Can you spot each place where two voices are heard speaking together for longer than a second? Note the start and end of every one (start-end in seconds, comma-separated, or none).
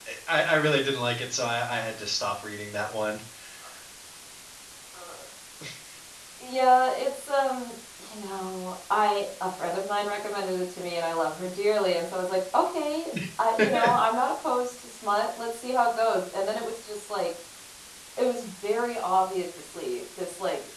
none